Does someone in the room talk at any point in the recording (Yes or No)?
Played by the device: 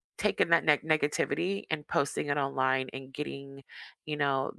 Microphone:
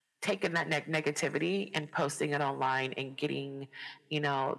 No